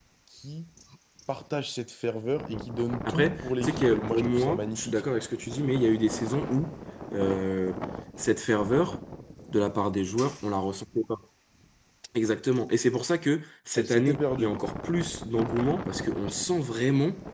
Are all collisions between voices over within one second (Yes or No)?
No